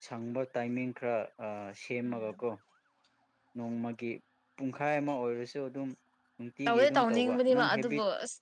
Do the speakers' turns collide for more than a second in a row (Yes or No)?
Yes